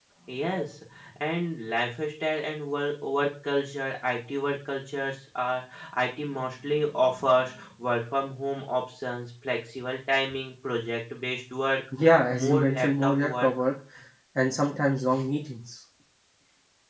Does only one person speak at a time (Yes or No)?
No